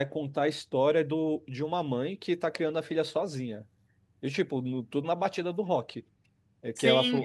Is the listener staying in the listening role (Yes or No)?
No